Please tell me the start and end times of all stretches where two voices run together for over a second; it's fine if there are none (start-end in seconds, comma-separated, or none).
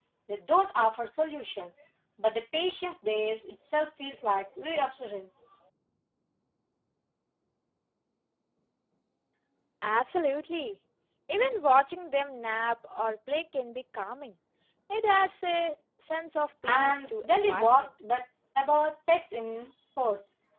16.7-17.9